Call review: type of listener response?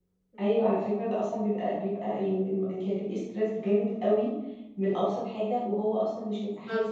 taking over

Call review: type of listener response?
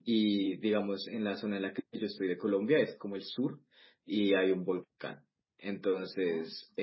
listening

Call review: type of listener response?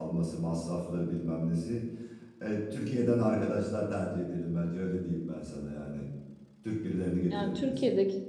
taking over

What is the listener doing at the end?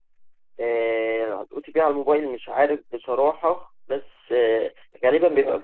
listening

